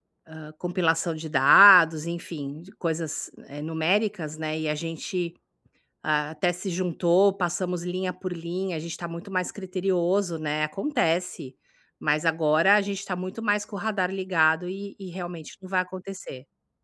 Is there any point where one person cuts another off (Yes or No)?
No